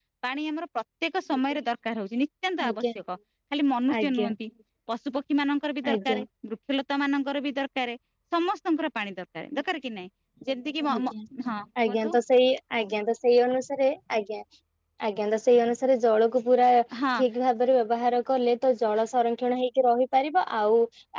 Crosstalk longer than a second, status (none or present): none